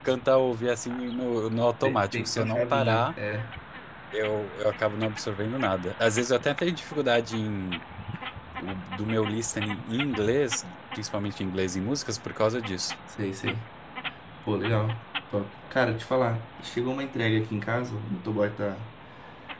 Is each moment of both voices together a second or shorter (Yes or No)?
No